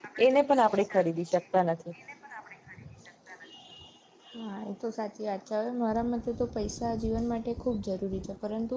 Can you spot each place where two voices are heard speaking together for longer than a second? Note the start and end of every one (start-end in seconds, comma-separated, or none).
none